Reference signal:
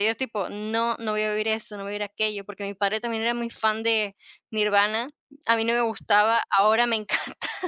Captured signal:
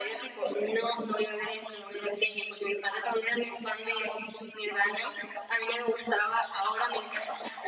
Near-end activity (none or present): none